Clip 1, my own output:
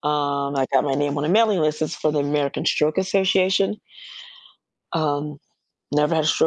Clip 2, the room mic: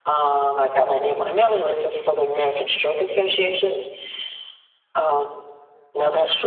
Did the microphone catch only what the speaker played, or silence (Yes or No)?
Yes